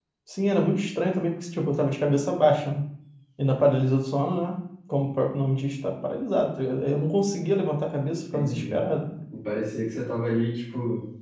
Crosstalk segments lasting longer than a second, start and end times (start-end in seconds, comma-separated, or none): none